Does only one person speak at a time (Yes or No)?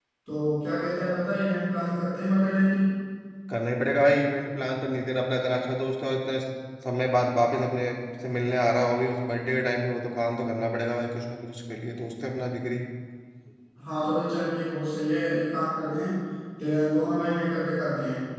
Yes